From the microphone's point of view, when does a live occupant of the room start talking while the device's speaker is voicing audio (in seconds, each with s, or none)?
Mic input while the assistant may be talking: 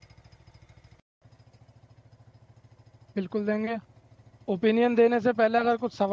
3.2 s